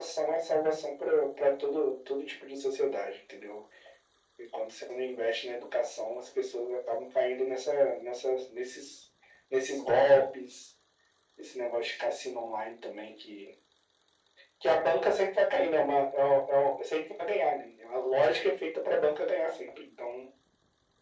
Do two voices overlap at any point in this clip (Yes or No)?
No